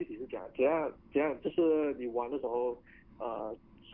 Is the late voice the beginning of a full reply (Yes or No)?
No